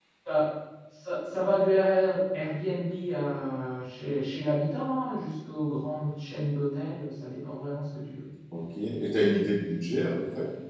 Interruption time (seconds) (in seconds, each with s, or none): none